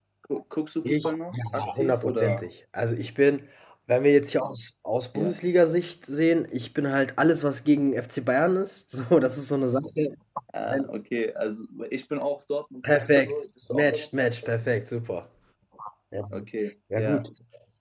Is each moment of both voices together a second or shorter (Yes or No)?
No